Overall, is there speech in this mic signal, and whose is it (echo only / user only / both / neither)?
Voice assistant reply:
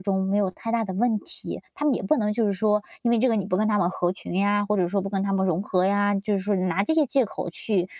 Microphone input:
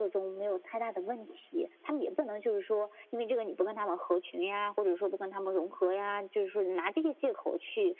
echo only